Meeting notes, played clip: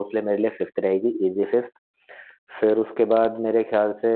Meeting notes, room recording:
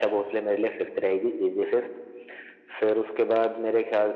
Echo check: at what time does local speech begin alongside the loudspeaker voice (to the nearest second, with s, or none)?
none